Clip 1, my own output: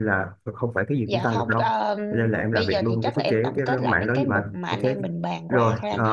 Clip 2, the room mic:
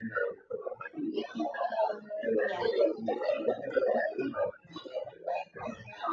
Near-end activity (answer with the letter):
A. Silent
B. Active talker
B